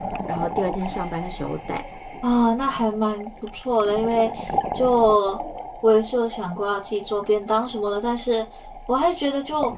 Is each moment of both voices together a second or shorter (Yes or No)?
Yes